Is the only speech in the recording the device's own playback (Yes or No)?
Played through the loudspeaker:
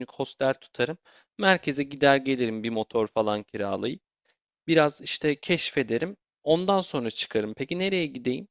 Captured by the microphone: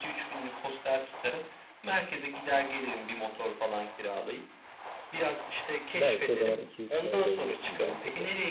No